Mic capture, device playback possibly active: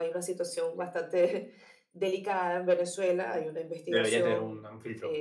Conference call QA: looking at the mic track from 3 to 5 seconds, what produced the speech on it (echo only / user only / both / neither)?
both